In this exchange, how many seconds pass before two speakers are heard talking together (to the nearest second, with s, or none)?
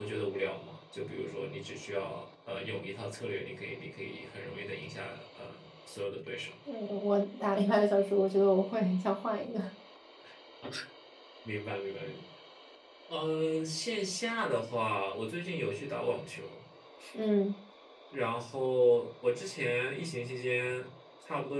none